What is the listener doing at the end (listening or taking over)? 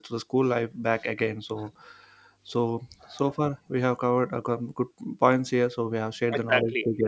taking over